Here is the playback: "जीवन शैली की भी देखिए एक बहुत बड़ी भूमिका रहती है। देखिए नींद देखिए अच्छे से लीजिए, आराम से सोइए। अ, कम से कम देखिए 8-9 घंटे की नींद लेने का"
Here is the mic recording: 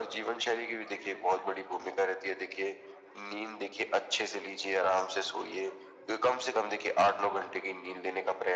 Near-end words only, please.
none

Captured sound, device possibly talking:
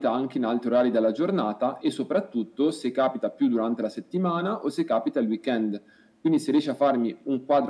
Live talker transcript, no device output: none

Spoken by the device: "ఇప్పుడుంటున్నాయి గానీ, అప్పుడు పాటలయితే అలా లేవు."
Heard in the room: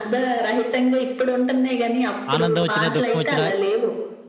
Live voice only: ఆనందం వచ్చినా, దుఃఖం వచ్చినా

